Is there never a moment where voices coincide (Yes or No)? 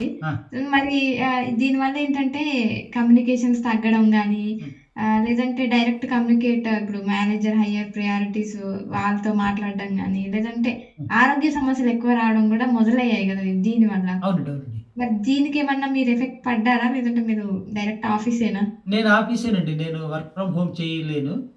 Yes